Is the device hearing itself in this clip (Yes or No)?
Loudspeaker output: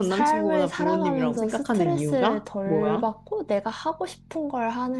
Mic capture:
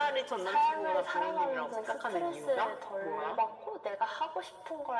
Yes